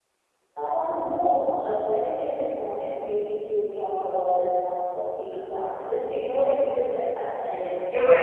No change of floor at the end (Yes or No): No